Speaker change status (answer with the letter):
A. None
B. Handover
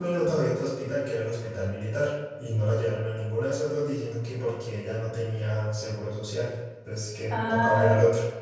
B